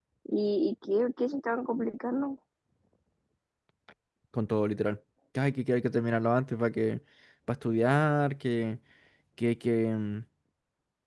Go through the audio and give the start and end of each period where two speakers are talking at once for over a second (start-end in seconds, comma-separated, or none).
none